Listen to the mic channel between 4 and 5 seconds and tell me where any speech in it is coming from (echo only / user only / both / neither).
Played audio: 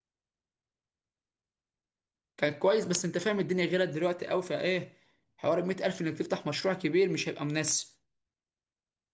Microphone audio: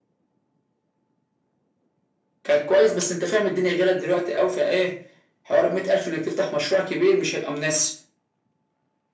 echo only